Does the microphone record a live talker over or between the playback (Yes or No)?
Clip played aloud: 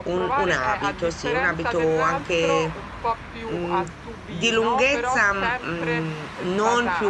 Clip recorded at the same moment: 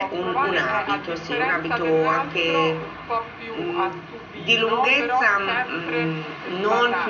No